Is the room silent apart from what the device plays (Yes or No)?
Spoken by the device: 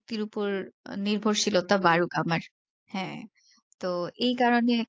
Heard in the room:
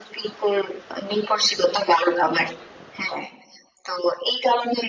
Yes